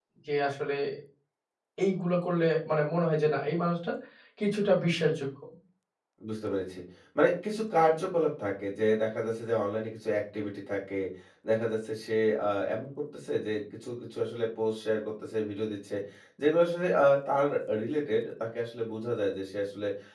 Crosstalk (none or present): none